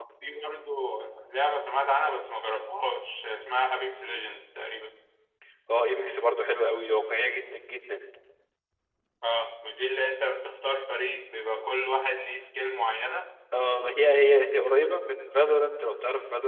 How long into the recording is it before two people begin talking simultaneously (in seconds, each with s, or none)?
none